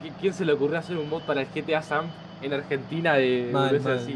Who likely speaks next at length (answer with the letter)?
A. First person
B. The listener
B